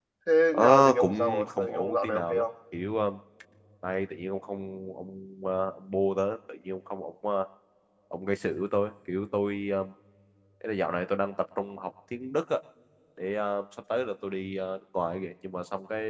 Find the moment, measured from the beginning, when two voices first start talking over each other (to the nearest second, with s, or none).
1 s